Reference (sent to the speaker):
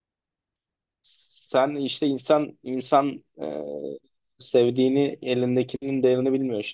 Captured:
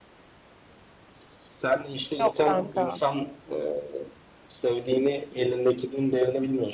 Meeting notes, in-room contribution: present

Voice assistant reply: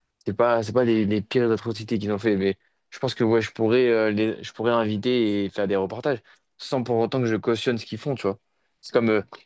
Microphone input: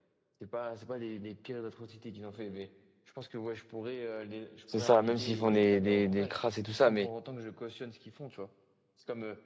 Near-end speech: present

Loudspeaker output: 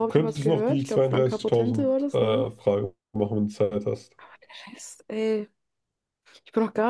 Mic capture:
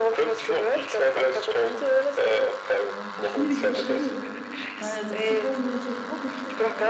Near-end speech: present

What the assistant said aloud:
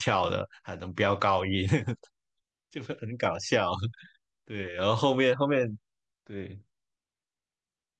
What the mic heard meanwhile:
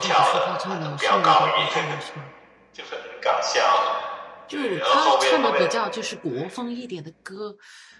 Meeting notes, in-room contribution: present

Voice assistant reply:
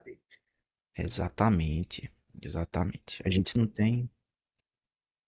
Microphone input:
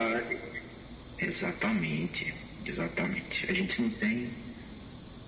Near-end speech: none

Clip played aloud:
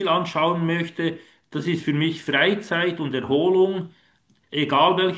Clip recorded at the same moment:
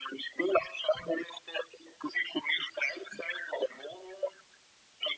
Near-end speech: none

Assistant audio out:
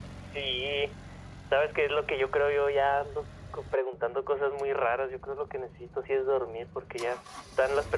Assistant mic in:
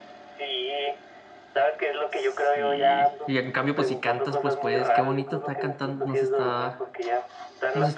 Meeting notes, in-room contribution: present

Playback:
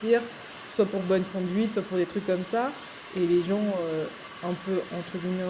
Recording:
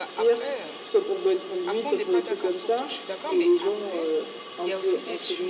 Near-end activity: present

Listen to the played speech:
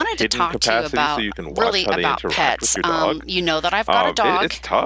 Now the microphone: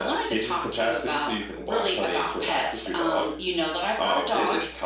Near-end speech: none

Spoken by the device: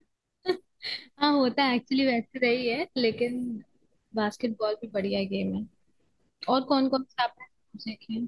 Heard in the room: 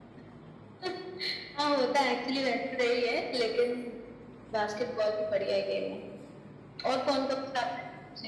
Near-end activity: none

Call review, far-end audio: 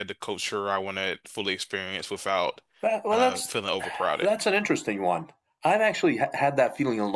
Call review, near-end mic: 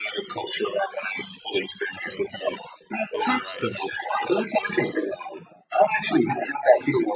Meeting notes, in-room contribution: present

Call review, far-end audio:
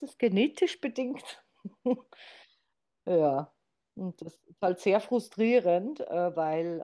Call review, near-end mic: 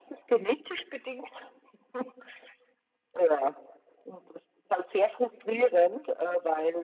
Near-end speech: none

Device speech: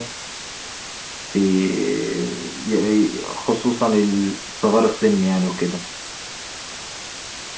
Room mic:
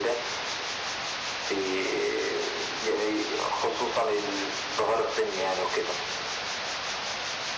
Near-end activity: none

